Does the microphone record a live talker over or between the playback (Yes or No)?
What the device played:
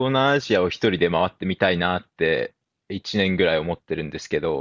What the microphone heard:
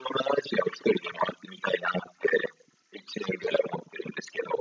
No